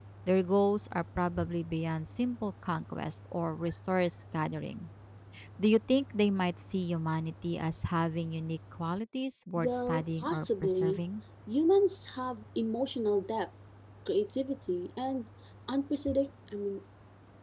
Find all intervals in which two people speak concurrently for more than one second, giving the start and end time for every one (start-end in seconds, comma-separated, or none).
9.6-11.0